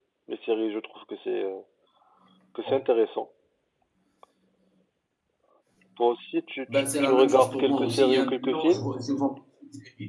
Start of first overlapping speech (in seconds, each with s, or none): 6.7 s